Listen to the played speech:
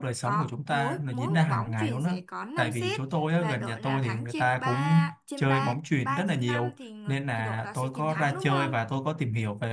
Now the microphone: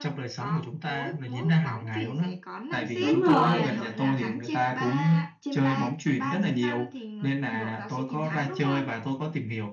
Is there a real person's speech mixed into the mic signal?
Yes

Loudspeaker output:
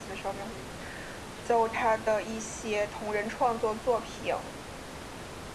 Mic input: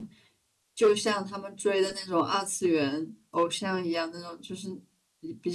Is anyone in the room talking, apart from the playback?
Yes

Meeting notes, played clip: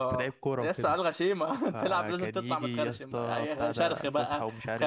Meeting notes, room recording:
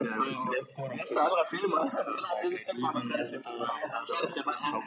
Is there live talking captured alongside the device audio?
No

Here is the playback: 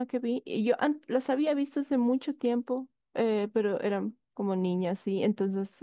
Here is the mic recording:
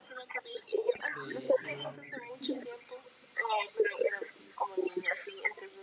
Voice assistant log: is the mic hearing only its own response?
No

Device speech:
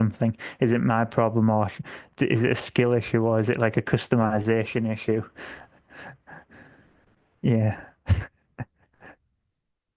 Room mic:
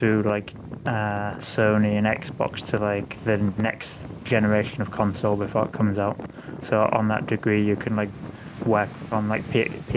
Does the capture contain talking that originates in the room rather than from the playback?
Yes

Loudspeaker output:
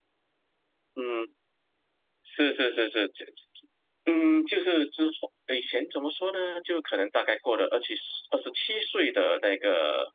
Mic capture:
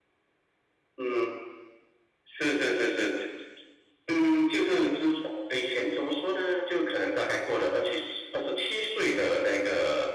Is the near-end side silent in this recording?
Yes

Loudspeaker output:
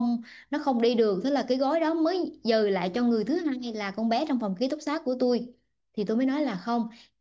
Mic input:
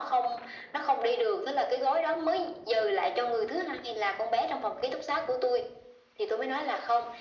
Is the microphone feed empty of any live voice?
Yes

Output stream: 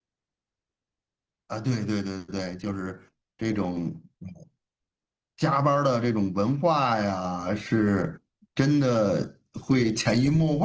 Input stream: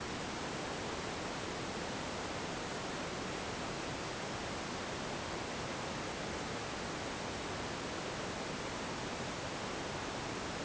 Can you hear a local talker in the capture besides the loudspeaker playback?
No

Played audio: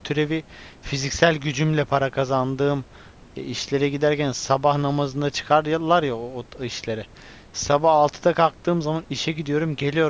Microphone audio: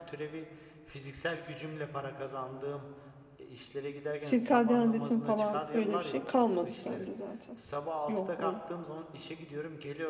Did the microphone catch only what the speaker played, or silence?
No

